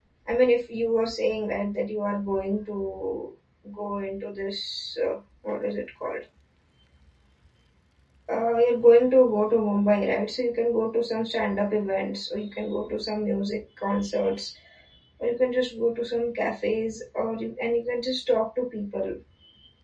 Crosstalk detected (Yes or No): No